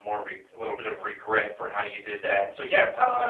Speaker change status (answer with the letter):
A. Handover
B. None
A